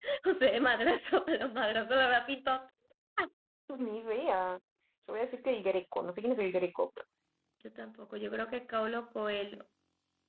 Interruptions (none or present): none